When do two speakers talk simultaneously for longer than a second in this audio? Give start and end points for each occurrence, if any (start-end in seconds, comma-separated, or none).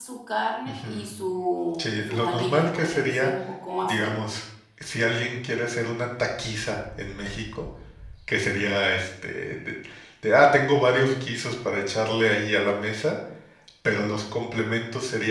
1.8-3.3